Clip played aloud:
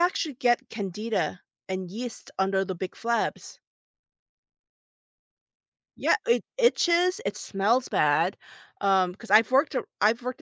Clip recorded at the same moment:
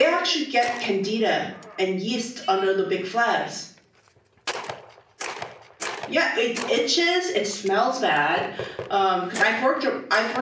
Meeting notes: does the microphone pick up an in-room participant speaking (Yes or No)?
No